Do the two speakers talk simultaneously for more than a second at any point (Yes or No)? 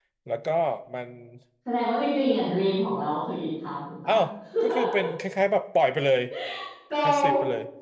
No